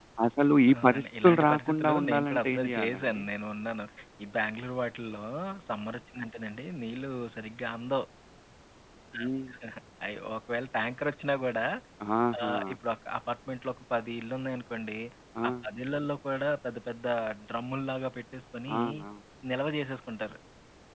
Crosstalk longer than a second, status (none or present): present